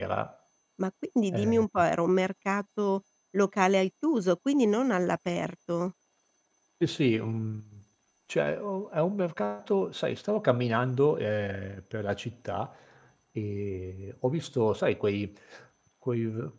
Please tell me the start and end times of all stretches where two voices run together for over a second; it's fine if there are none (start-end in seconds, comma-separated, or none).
none